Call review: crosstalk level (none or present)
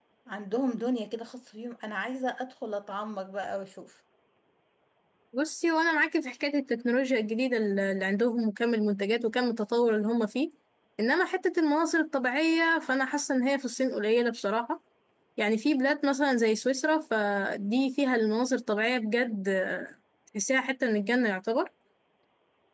none